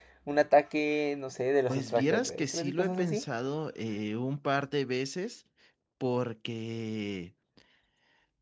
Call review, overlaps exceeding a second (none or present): present